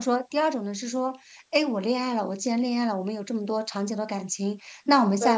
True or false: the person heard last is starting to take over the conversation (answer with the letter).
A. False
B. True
A